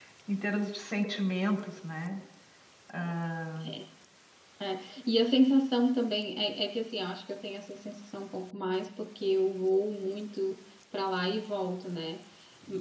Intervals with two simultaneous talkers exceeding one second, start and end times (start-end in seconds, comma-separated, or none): none